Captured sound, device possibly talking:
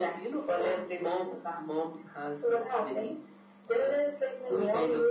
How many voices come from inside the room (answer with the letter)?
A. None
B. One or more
A